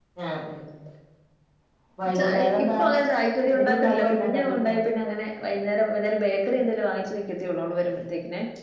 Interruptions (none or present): present